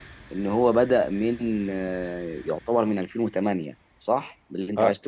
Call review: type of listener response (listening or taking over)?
taking over